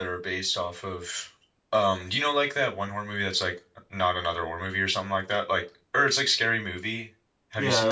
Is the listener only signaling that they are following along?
No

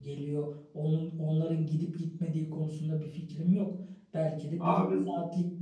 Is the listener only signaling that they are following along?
Yes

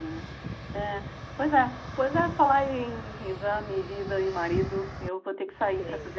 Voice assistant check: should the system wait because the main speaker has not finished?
Yes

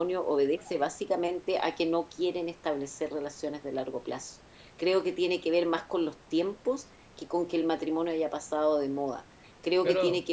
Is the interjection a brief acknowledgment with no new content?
Yes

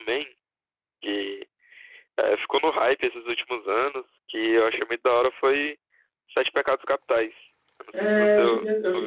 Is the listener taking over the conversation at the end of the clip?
Yes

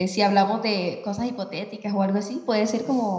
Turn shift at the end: Yes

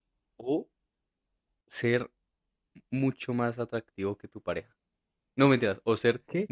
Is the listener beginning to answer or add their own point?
No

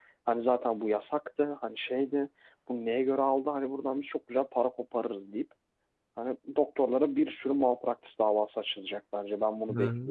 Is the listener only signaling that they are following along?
No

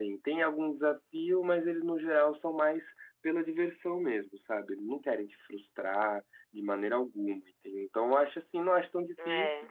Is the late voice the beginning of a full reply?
No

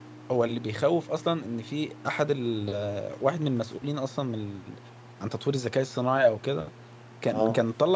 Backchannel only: Yes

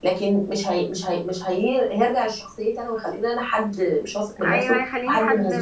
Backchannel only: No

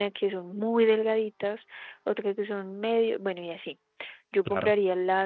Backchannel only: Yes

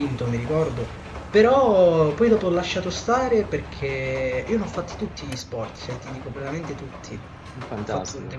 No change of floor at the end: Yes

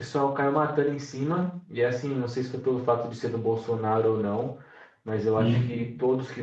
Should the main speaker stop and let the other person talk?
No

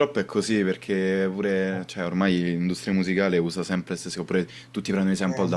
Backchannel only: Yes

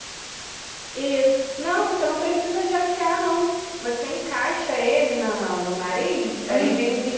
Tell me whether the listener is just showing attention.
Yes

